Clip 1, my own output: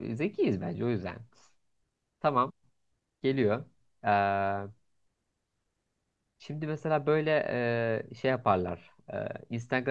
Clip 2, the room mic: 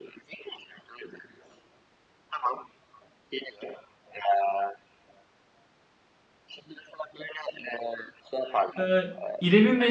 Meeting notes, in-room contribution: present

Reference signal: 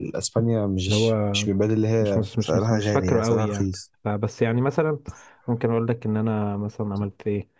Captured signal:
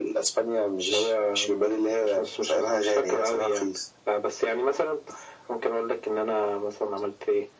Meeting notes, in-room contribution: none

